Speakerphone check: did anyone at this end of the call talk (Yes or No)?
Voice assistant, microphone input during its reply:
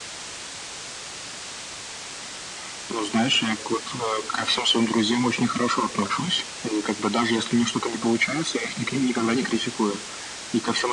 No